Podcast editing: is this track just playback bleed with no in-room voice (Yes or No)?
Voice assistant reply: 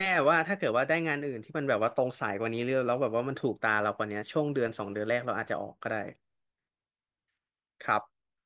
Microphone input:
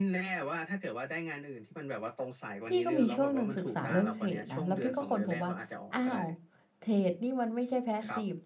No